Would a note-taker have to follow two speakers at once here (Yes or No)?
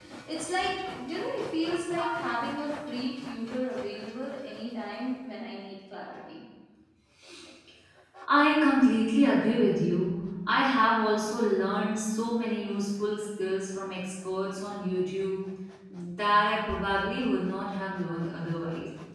No